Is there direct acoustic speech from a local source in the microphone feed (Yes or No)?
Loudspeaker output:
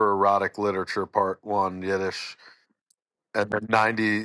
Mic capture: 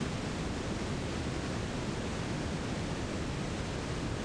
No